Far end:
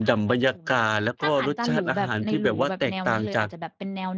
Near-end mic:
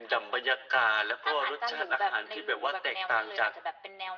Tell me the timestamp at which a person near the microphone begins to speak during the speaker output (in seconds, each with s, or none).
none